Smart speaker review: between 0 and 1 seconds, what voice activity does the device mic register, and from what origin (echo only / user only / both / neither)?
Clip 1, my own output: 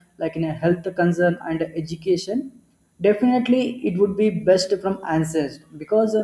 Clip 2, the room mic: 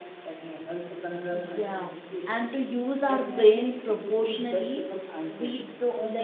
echo only